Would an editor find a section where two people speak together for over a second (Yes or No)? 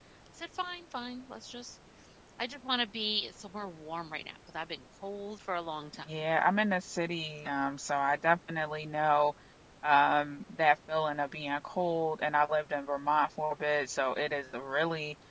No